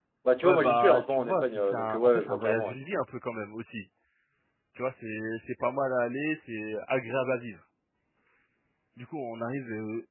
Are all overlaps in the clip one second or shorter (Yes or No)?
No